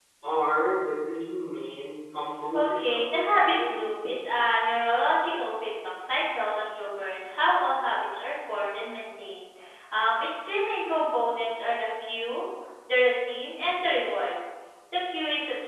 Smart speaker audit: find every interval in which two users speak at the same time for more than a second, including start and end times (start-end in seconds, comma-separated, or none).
2.5-3.9